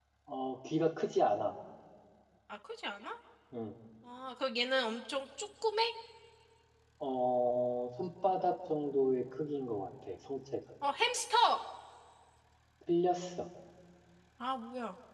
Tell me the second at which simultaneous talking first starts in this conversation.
none

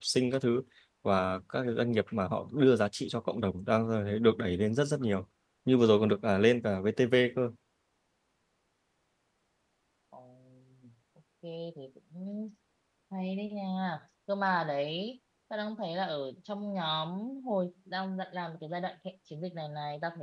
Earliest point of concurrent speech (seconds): none

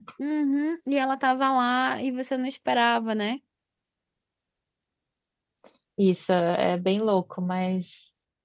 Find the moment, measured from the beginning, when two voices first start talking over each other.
none

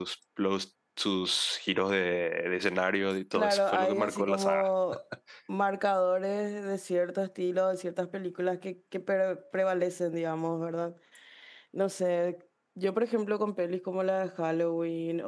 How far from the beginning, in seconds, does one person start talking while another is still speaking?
3.3 s

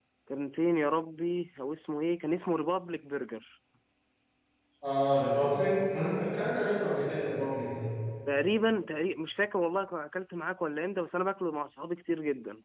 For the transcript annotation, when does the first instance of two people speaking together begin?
none

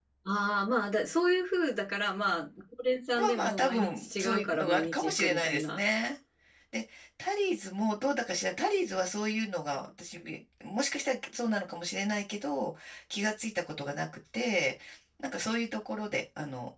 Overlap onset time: 3.1 s

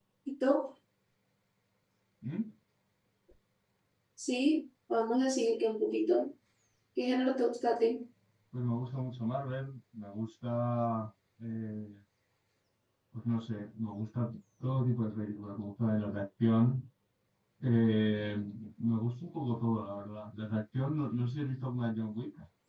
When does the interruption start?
none

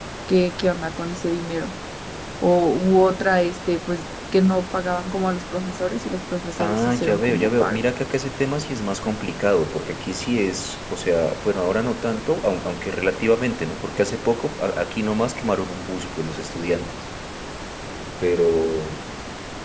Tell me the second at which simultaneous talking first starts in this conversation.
6.6 s

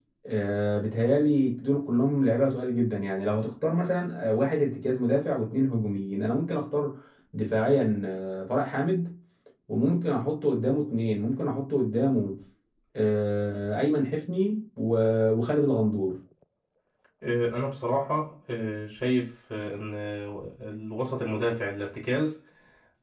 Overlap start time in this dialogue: none

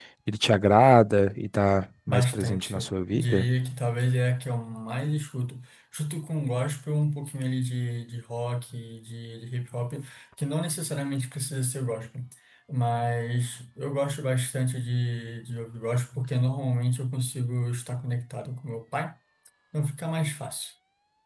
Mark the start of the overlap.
2.1 s

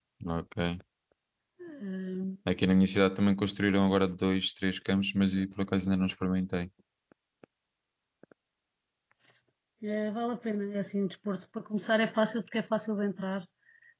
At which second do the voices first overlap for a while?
none

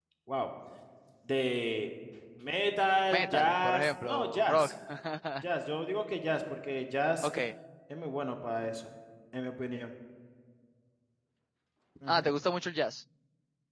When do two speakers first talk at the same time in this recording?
3.1 s

